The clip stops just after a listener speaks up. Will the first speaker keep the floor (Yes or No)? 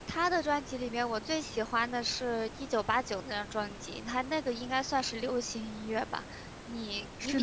No